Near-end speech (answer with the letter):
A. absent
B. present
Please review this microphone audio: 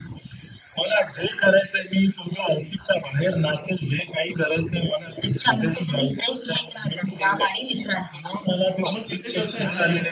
B